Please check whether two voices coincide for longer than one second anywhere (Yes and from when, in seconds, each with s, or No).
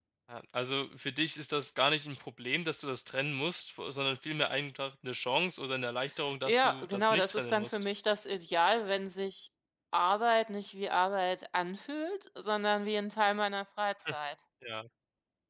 Yes, from 6.5 s